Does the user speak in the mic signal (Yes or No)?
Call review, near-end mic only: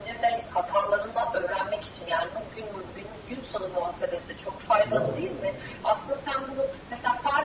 Yes